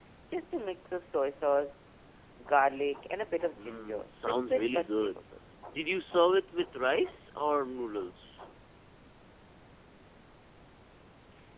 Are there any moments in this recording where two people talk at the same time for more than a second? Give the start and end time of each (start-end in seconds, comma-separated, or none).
3.6-5.2